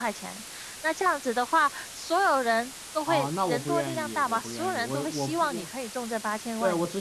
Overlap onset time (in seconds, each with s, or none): 3.1 s